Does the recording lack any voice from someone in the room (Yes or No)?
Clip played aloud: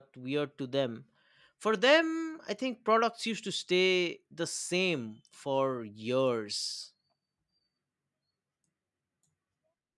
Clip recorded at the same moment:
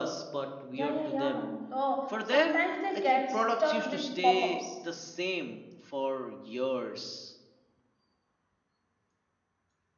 No